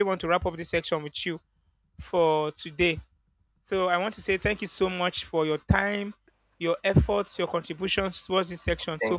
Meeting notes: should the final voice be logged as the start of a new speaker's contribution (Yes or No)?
Yes